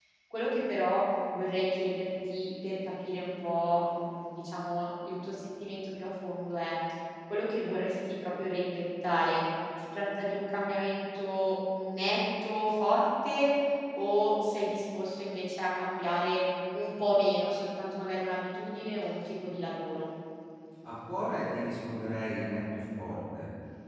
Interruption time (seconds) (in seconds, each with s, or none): none